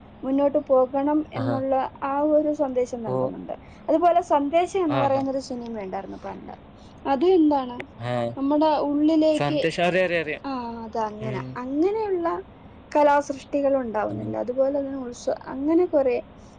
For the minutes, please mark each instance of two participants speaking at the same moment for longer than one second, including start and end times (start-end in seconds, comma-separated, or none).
none